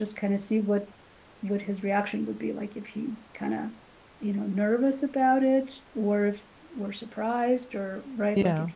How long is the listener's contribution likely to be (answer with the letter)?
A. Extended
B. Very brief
B